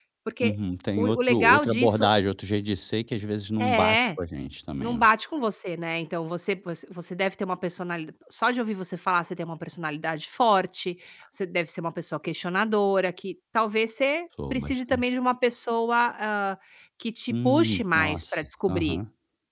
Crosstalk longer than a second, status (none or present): present